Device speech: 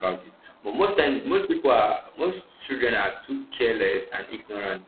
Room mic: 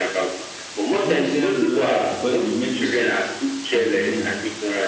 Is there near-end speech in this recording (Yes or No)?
Yes